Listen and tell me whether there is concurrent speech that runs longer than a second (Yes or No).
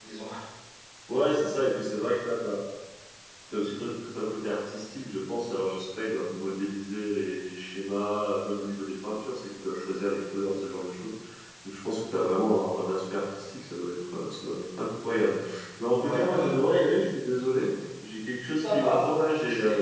Yes